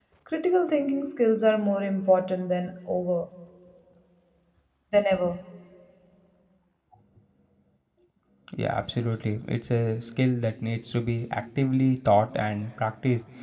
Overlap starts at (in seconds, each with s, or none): none